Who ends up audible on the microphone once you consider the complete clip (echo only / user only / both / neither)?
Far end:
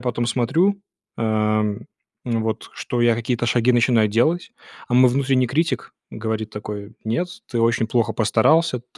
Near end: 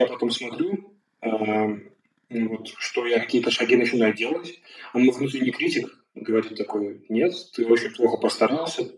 echo only